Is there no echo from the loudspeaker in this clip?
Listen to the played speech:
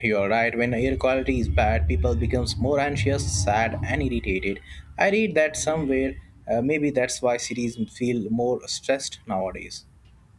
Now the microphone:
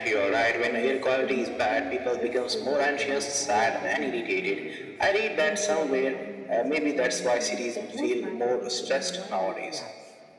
No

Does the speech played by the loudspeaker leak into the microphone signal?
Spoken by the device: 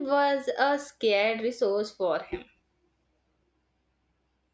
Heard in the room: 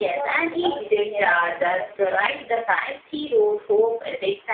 Yes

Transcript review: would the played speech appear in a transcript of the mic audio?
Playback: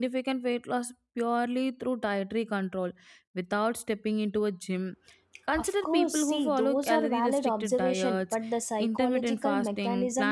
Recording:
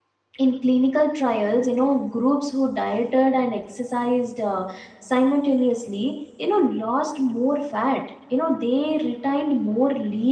No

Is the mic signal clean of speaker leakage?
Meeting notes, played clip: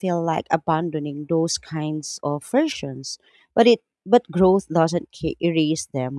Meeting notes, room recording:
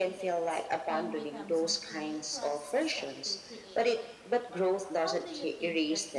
No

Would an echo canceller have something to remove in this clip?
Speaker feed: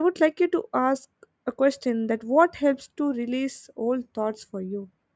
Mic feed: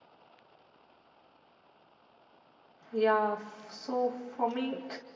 No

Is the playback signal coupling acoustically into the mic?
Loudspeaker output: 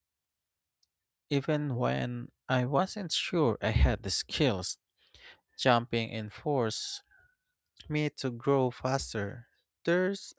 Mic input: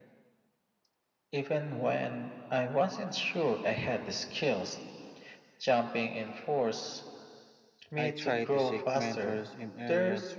Yes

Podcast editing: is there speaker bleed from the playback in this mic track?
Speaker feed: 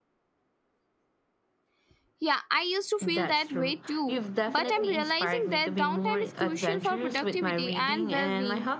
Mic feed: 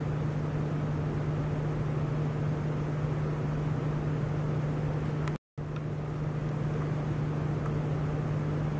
No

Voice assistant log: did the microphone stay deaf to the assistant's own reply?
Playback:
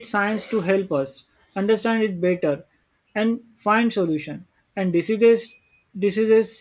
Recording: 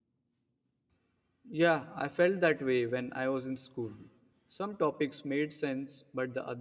Yes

